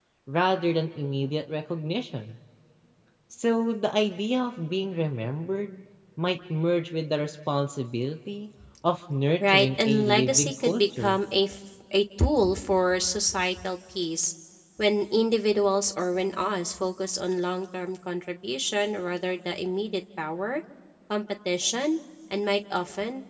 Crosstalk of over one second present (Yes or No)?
Yes